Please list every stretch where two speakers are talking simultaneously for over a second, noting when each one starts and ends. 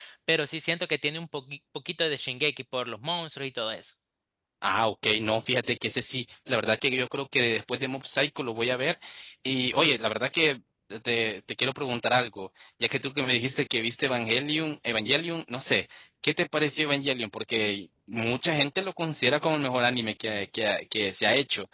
none

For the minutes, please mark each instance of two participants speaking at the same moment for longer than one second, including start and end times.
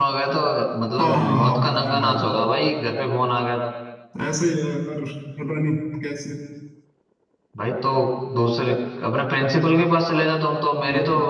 1.0-2.2

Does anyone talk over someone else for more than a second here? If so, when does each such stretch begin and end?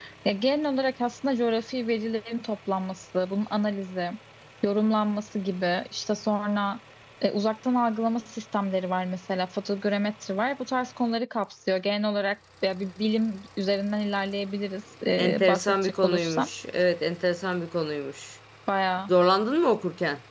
15.2-16.5

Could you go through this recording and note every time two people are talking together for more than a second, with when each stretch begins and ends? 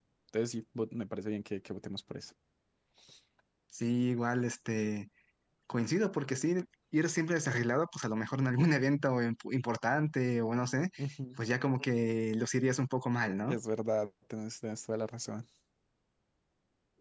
none

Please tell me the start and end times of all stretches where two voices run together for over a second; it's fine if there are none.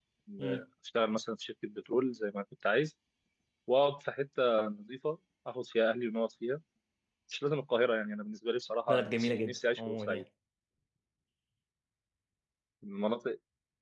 8.9-10.2

